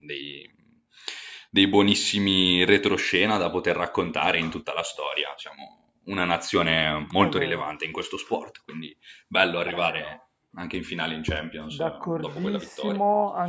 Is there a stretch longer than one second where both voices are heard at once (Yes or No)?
Yes